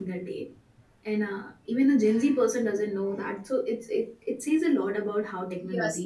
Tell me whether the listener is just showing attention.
No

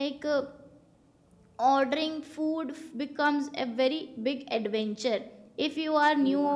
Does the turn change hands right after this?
No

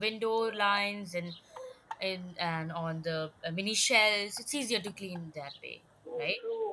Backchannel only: No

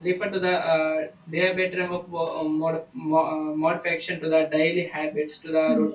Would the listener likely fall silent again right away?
Yes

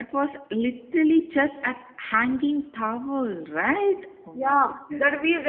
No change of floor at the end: No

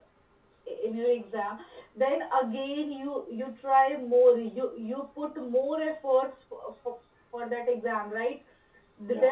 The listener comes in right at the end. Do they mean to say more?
No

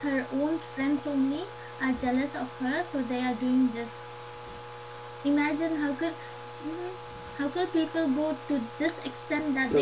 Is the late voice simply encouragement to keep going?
Yes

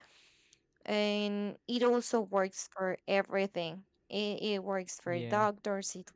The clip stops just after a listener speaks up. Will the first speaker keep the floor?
Yes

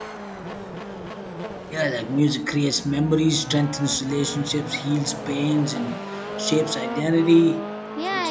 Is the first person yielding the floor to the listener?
Yes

